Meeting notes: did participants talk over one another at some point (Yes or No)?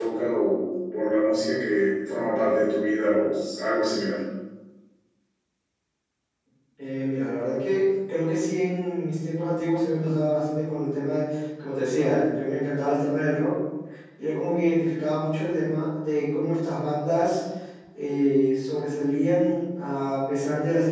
No